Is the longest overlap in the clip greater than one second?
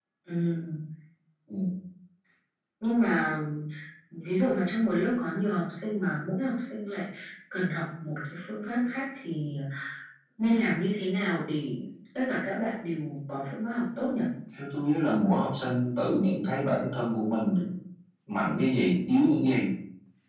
No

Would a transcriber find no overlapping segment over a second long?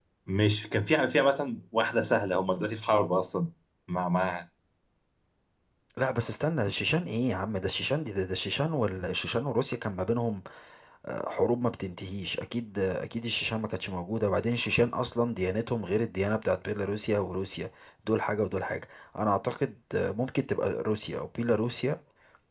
Yes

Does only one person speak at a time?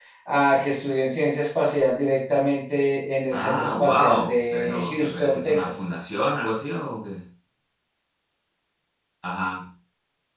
No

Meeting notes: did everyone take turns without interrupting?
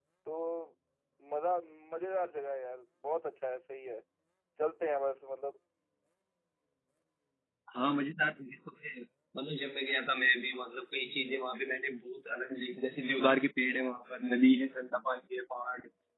Yes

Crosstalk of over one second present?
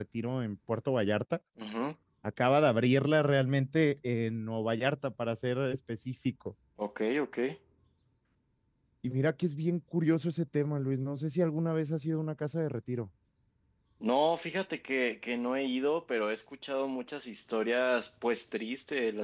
No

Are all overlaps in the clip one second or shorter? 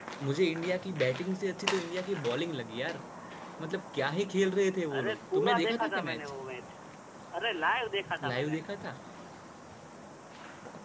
No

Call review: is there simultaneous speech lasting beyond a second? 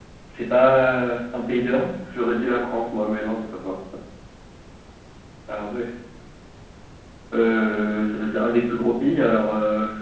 No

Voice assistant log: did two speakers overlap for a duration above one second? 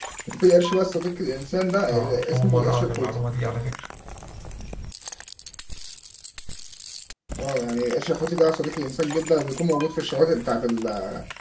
Yes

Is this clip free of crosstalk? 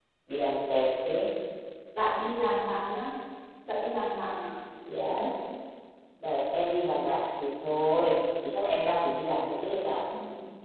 Yes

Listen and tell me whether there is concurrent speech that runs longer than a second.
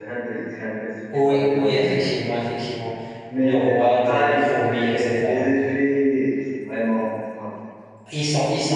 Yes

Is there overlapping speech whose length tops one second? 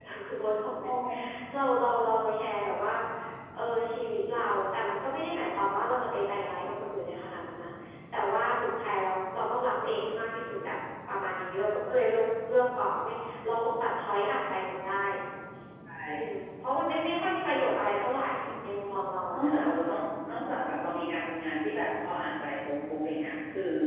No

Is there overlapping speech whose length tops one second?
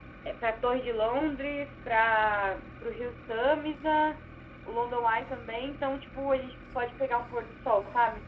No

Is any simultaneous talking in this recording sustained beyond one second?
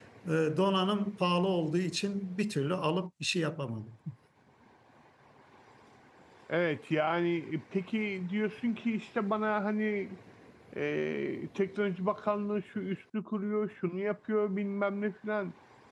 No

